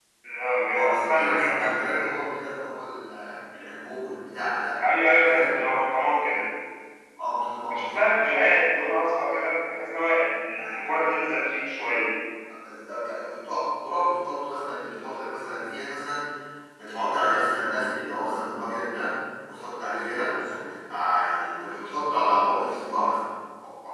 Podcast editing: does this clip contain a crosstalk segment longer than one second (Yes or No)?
Yes